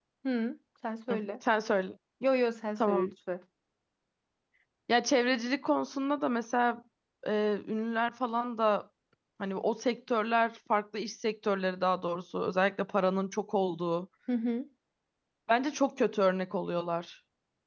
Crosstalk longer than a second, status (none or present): none